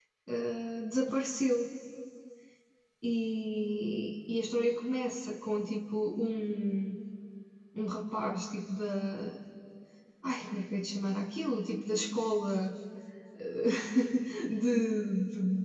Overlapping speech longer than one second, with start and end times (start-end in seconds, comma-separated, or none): none